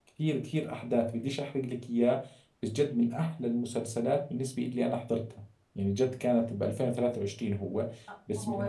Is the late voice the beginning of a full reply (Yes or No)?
Yes